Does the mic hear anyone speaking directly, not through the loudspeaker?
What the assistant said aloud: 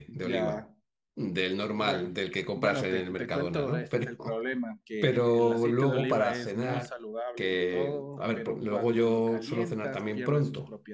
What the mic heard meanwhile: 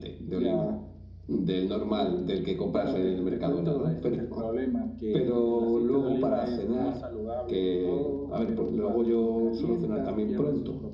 No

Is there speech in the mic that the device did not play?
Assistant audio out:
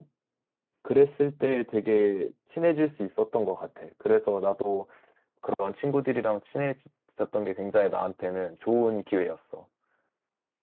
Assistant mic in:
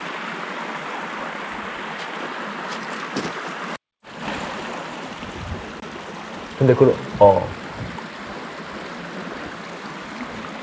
Yes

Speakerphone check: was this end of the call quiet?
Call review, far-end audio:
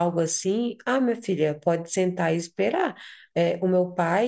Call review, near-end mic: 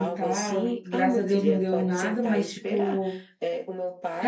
No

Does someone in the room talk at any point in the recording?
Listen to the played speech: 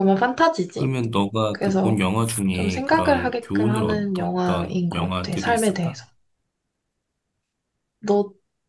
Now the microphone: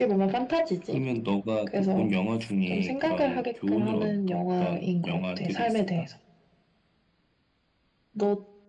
No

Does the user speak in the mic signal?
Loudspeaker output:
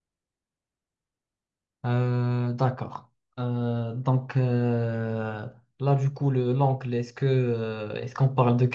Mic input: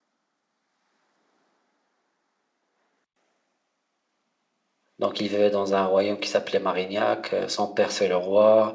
Yes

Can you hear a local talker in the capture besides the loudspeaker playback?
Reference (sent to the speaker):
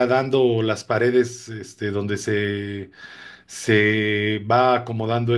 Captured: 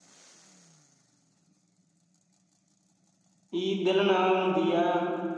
Yes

